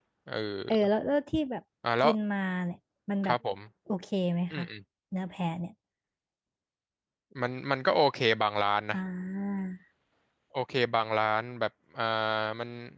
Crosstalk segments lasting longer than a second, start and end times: none

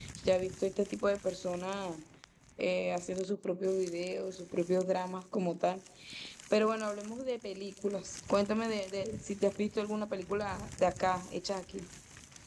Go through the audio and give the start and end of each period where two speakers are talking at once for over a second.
none

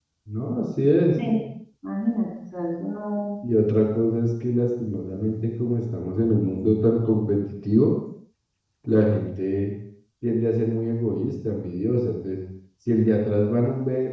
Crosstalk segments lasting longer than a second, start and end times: none

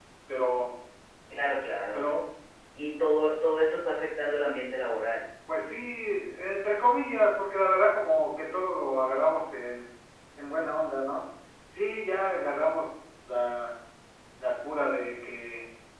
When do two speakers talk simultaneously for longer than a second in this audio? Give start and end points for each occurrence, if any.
none

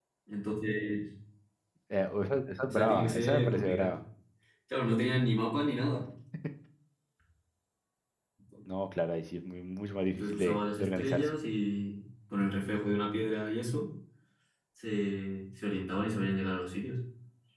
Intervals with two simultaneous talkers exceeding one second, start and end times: 2.7-3.9, 10.1-11.4

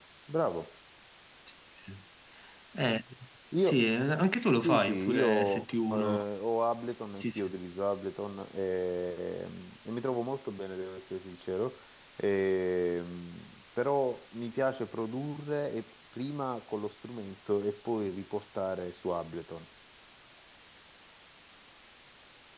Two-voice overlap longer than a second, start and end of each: 4.5-6.2

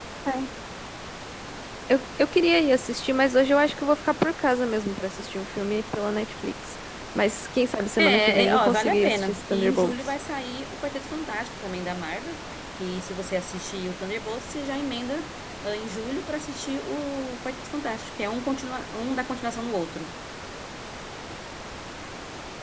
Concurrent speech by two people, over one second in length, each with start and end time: 8.0-10.1

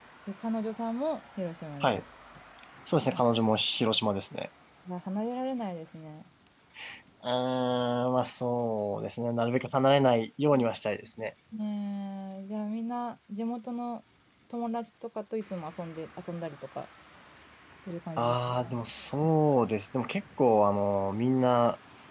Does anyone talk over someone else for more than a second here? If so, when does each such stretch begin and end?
none

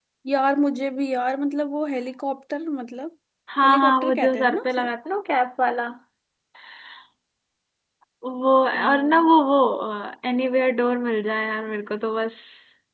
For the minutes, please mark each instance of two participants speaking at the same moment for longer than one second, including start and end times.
3.6-4.9

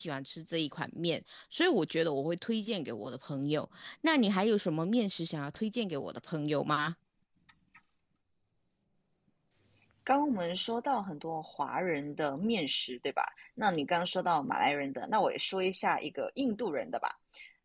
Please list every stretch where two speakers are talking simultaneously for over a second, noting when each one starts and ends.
none

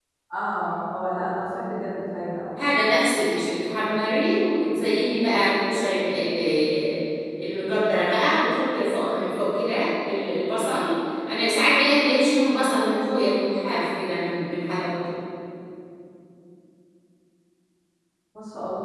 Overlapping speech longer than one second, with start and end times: none

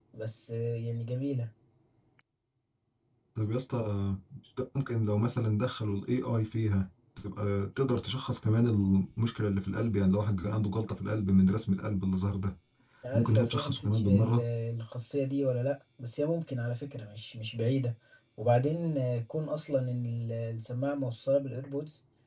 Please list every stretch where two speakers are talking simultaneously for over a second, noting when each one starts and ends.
13.1-14.4

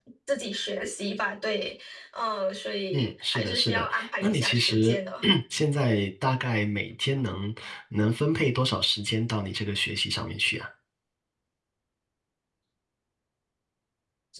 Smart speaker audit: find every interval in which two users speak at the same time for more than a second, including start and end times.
2.9-5.0

